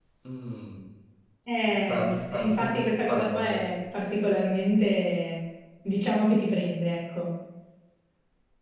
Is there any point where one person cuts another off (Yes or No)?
Yes